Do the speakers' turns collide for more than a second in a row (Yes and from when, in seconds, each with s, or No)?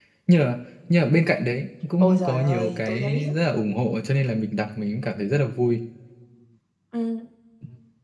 Yes, from 2.0 s